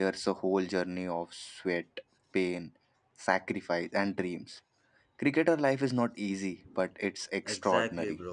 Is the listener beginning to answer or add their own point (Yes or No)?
Yes